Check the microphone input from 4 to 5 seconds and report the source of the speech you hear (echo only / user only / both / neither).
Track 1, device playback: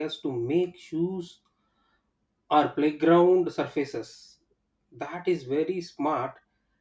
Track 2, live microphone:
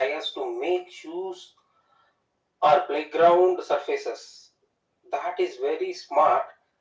echo only